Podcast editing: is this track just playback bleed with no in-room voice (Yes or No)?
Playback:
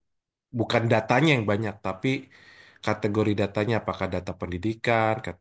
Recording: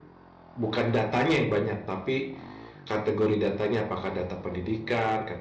Yes